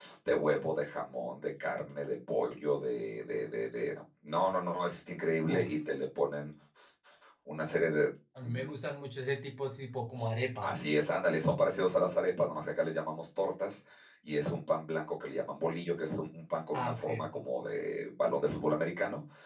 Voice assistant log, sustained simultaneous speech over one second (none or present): none